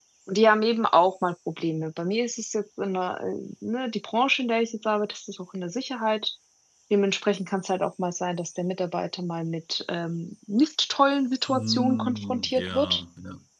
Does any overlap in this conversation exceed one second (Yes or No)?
Yes